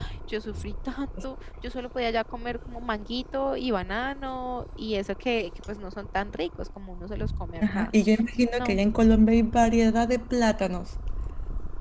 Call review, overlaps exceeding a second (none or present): none